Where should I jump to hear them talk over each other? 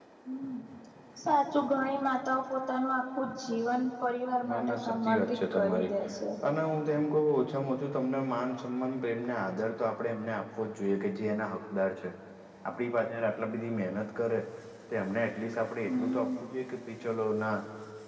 4.5 s

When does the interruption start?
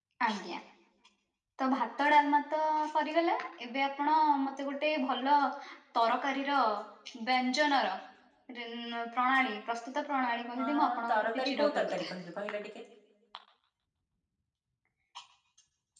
10.6 s

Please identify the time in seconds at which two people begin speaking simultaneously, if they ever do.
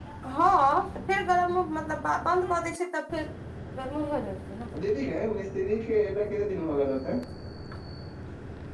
none

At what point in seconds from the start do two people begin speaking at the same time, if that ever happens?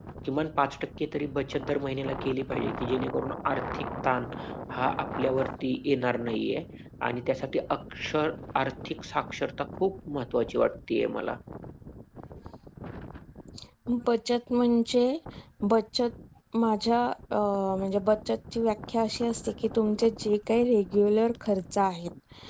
none

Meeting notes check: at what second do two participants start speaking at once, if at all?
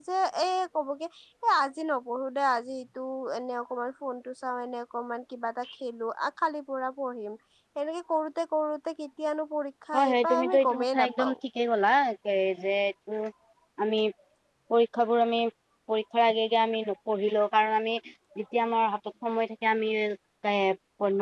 9.9 s

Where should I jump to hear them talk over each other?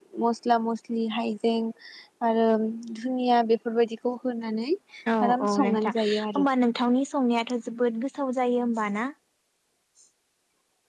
5.2 s

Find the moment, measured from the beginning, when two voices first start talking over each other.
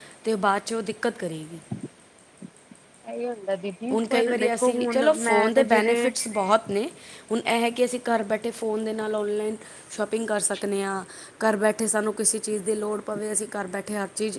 3.9 s

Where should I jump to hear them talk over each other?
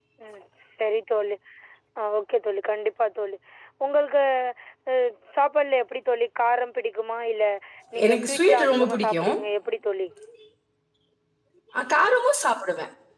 8.1 s

